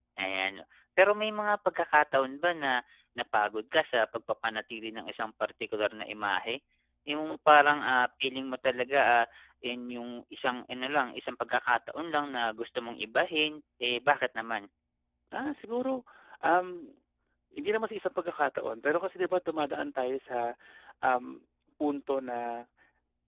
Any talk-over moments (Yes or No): No